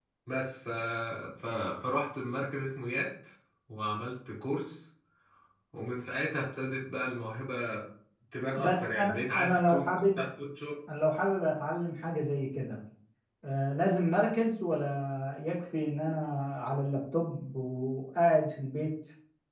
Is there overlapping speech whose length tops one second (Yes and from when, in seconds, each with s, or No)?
Yes, from 8.6 s